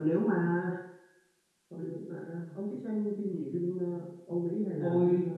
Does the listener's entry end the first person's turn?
Yes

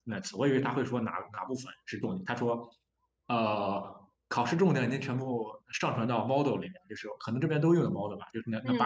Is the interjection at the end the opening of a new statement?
No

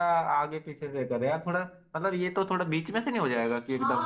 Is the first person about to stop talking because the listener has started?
Yes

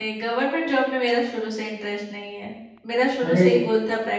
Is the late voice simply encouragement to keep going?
Yes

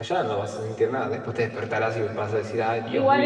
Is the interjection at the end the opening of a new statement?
Yes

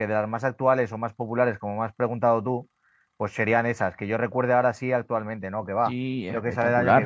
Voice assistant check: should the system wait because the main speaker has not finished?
No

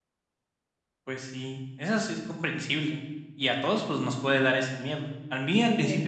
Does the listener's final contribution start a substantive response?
No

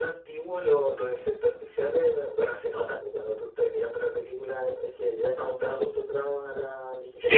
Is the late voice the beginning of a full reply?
No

